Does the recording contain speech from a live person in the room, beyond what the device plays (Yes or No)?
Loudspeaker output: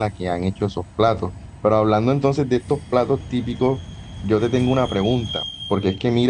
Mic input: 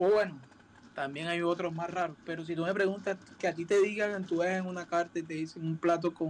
Yes